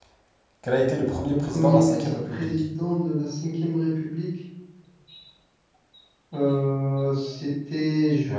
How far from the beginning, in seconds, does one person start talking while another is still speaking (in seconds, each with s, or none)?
1.3 s